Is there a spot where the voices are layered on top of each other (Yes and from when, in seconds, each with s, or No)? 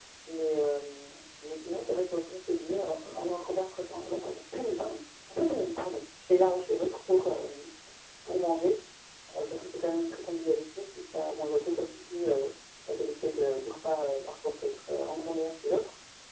No